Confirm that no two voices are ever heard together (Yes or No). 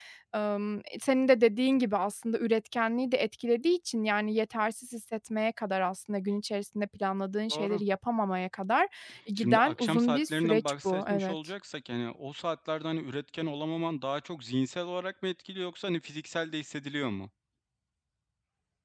No